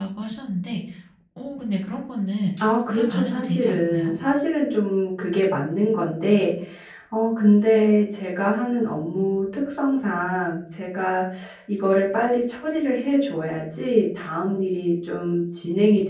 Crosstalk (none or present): present